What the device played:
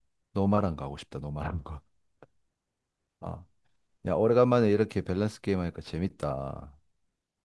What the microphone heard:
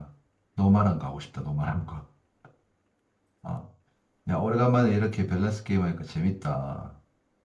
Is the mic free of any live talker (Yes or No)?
Yes